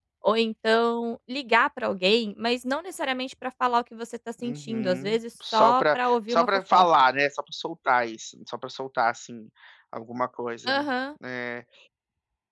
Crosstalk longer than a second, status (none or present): present